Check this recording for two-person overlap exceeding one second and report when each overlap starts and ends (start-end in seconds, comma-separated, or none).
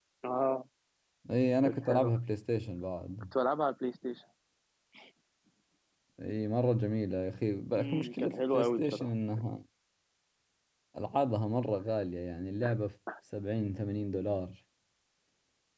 7.8-9.1